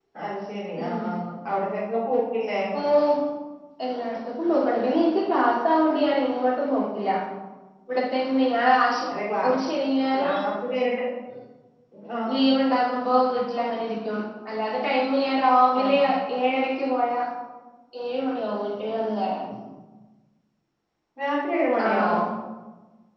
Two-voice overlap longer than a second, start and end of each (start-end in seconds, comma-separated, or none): none